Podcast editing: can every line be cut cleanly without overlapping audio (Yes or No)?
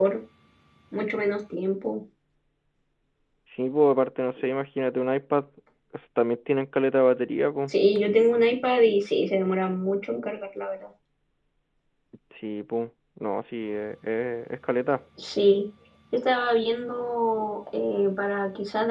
Yes